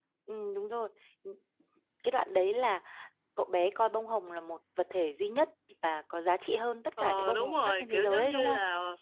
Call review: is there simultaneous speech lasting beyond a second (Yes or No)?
Yes